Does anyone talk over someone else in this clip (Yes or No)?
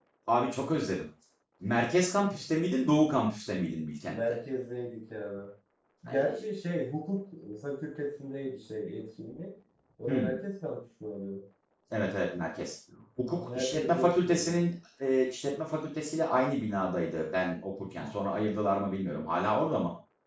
Yes